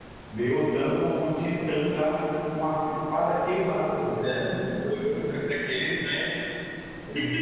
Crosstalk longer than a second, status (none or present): none